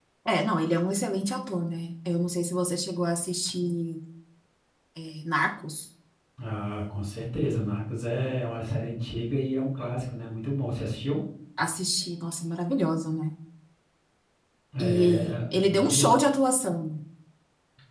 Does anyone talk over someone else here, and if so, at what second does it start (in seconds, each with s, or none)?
14.8 s